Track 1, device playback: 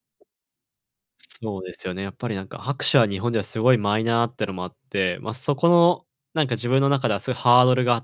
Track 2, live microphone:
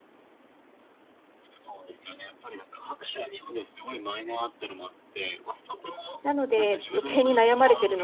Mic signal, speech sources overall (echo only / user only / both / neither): both